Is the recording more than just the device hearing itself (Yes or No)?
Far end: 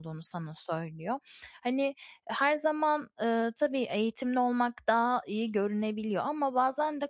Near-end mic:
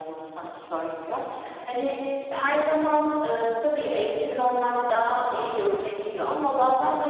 No